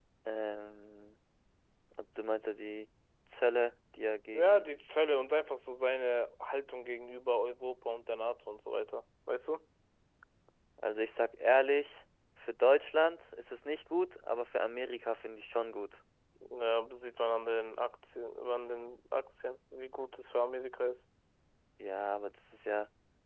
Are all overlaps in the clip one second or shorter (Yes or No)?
Yes